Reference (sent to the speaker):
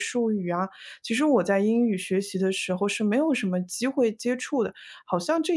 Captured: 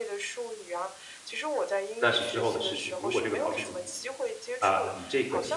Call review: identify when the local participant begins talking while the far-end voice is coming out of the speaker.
2.0 s

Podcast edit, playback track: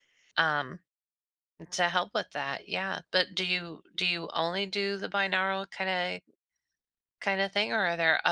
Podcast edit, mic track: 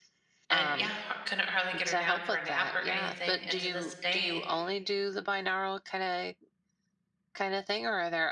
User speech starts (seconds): 0.5 s

